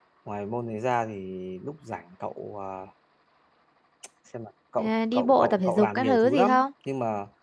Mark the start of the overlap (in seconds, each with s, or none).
4.8 s